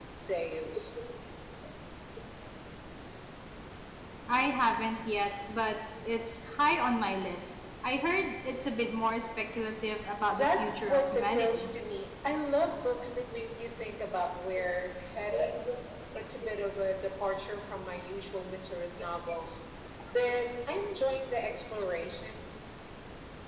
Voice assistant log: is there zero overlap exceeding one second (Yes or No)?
No